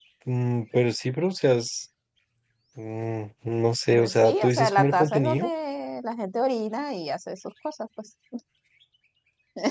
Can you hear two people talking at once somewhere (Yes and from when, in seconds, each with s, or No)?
Yes, from 3.9 s